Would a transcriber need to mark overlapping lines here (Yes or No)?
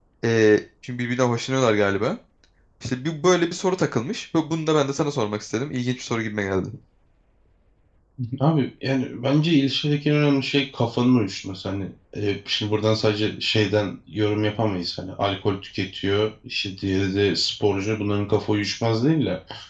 No